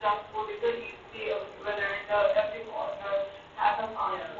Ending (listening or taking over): listening